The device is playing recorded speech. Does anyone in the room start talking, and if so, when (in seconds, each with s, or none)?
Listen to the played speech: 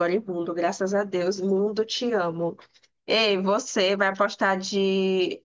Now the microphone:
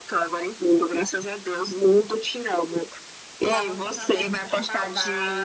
3.5 s